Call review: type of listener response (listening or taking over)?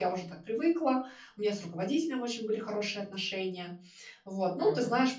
listening